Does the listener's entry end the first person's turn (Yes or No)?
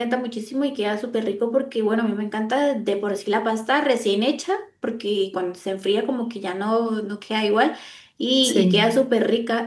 No